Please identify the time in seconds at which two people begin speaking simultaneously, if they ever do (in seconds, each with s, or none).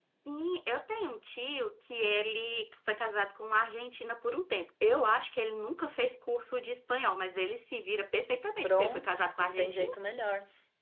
8.6 s